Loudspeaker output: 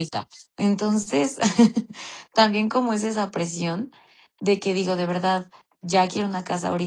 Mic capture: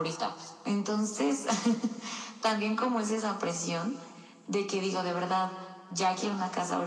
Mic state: echo only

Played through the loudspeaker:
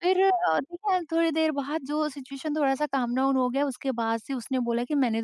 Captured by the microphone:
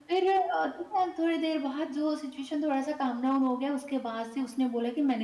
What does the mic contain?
echo only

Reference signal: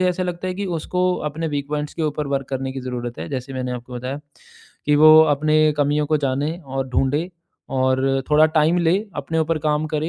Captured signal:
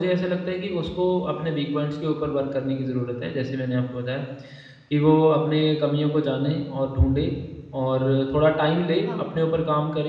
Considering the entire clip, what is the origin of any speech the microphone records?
both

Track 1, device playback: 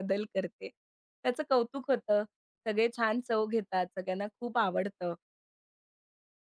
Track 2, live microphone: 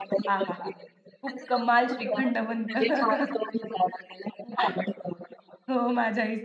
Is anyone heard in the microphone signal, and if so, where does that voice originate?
both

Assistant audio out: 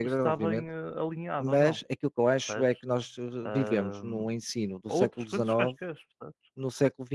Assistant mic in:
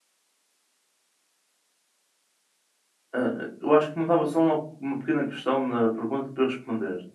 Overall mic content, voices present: user only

